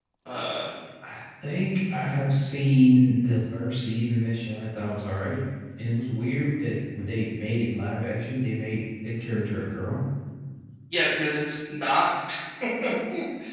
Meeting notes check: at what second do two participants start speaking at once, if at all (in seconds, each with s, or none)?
none